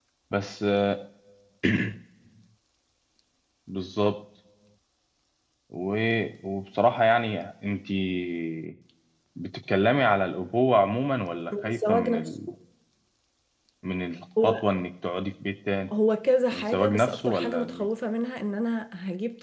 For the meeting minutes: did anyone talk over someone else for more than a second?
Yes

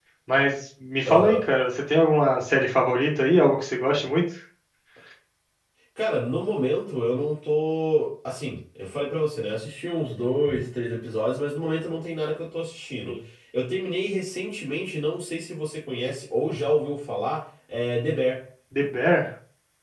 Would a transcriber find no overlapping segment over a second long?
Yes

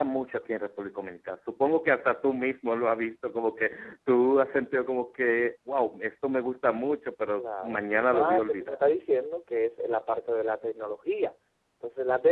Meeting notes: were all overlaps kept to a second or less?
No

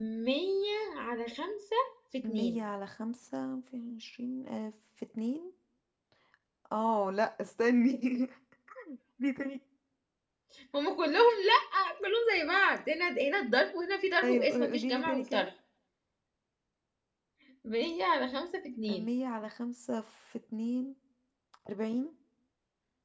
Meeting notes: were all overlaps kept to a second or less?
No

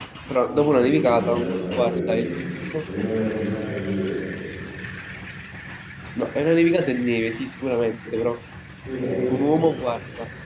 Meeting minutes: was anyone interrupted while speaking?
Yes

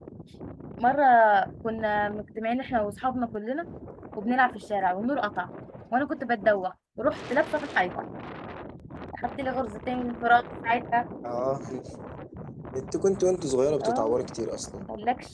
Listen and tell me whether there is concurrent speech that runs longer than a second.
No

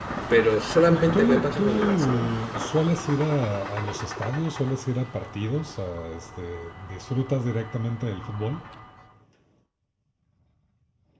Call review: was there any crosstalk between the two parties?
Yes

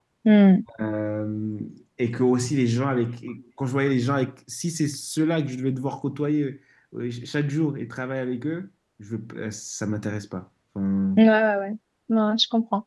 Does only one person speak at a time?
Yes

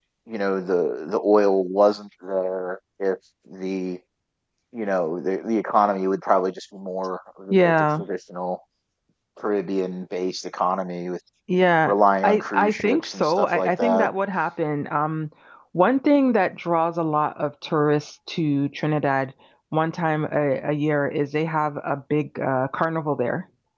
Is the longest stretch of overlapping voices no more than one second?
No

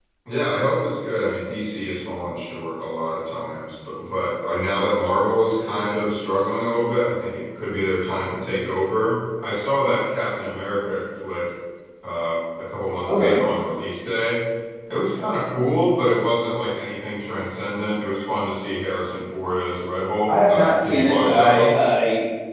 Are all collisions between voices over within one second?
No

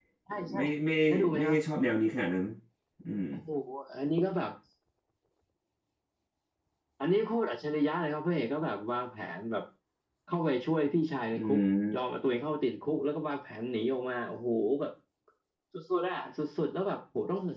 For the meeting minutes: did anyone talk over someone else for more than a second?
No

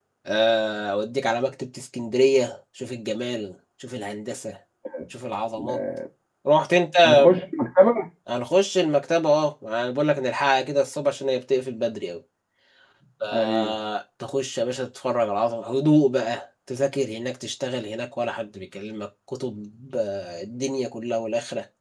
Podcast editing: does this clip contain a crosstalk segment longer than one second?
No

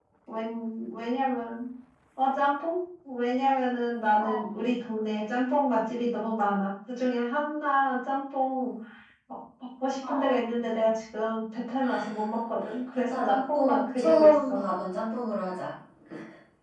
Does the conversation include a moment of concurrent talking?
Yes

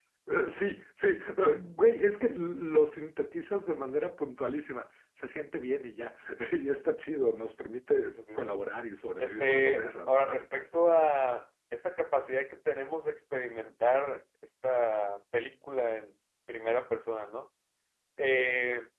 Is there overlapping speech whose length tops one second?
Yes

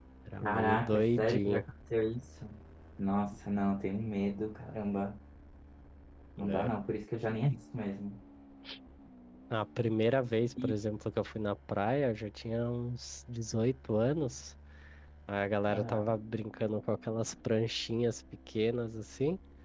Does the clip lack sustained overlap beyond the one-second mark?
No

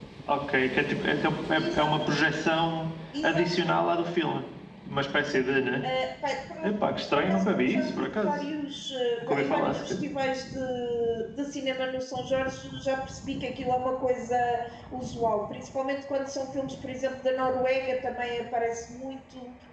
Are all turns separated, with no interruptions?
No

